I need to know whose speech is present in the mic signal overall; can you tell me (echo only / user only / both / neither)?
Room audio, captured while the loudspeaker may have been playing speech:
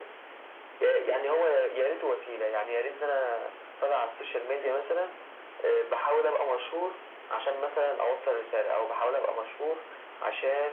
echo only